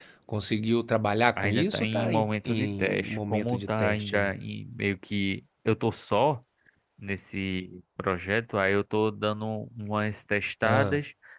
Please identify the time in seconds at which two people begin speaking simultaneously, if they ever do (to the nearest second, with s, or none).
1 s